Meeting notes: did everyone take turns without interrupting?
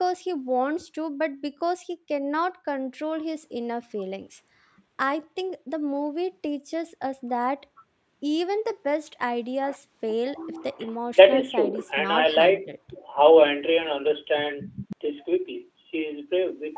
No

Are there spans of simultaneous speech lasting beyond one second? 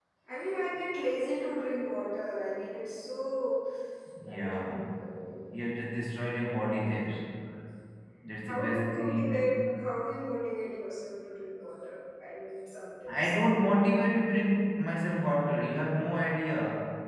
Yes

